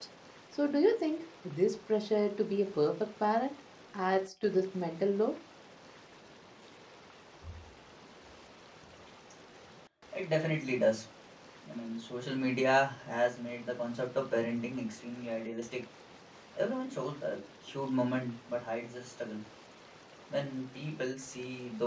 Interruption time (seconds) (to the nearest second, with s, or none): none